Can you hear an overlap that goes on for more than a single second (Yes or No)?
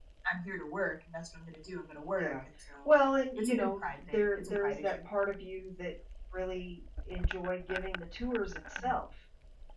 Yes